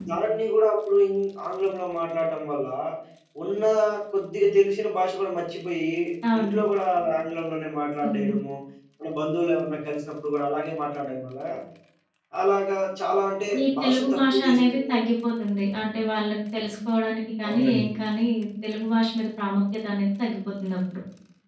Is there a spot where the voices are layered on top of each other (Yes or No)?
Yes